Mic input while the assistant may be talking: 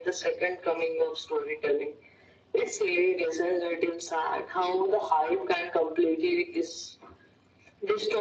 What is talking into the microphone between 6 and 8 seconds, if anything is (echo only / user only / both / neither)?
echo only